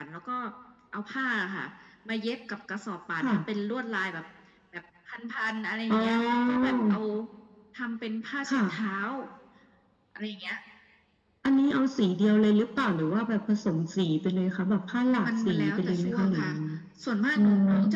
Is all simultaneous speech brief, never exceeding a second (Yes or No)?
No